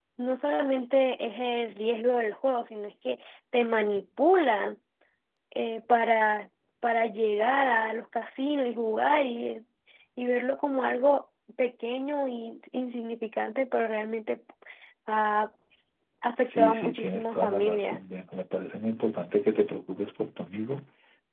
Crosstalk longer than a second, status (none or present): present